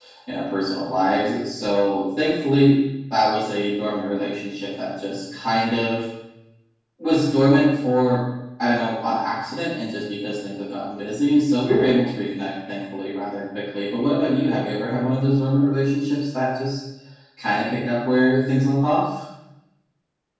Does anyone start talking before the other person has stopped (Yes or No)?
No